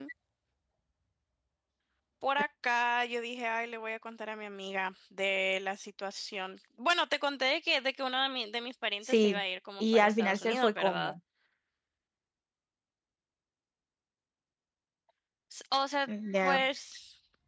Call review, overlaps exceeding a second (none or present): present